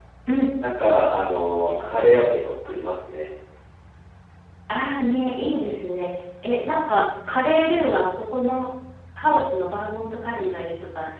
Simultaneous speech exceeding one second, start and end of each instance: none

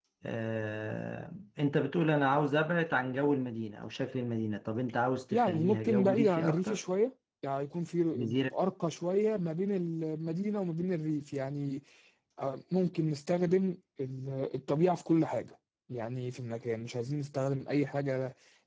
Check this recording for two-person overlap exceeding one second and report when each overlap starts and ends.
5.3-6.8

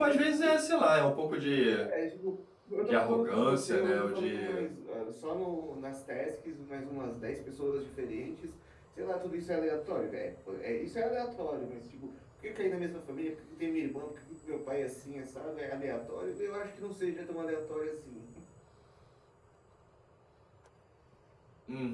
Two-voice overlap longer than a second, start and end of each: 2.8-4.6

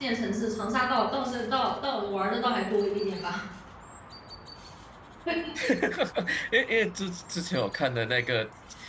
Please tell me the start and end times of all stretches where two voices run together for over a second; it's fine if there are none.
none

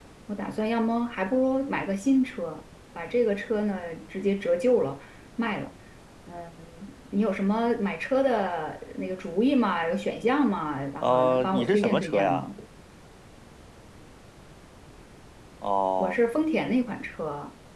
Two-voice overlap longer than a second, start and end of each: 11.0-12.5

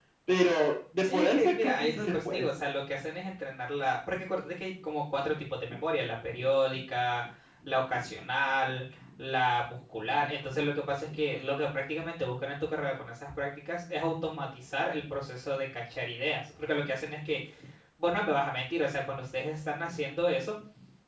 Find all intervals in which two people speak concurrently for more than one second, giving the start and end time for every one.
1.0-2.5

